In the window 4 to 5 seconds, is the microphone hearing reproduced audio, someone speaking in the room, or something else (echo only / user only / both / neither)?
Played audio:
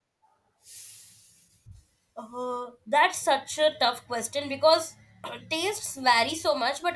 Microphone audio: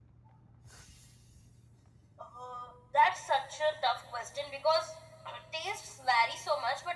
echo only